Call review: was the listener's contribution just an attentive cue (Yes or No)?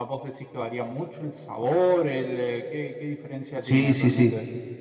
No